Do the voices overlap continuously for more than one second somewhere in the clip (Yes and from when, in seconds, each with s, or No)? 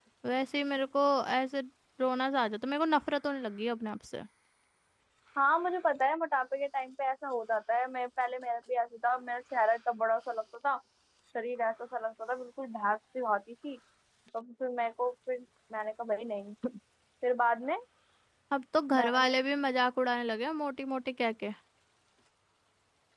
No